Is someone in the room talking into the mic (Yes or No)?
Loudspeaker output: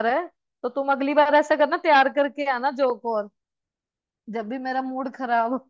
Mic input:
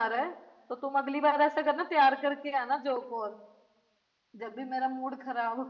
No